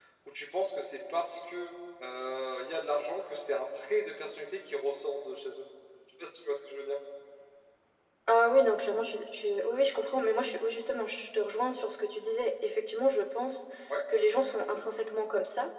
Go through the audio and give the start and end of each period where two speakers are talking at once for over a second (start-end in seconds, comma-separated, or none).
none